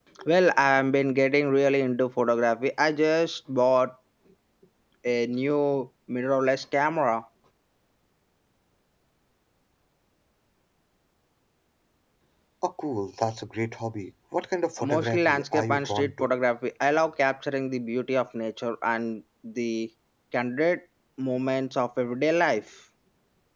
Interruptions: present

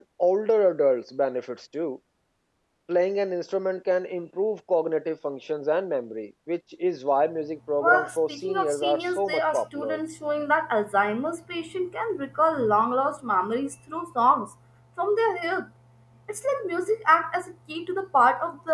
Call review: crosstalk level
present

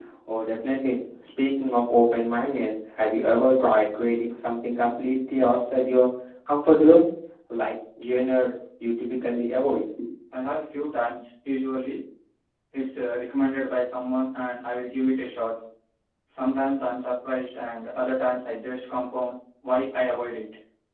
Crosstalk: none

